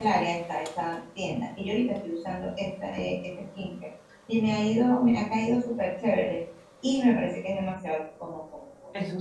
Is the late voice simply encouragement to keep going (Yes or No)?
Yes